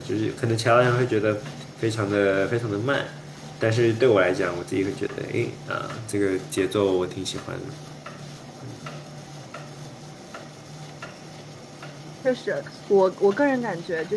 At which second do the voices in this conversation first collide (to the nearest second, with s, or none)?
none